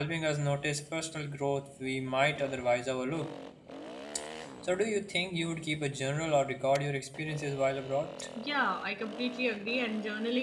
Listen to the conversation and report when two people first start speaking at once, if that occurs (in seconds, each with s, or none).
none